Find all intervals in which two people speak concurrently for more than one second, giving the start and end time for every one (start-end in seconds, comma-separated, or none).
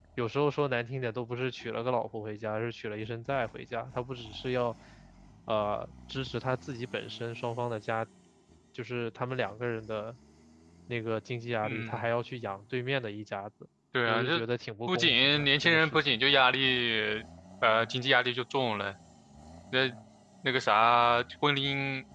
14.9-16.2